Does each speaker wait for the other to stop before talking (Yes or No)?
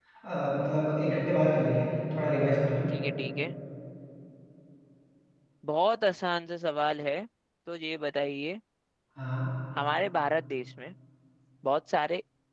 Yes